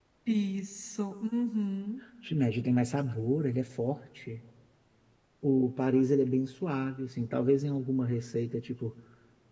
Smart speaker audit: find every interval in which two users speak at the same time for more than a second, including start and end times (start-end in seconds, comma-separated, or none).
none